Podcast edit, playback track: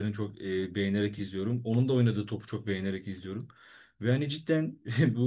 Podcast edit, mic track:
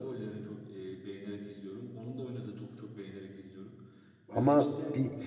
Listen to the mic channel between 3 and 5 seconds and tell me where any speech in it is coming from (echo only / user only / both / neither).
both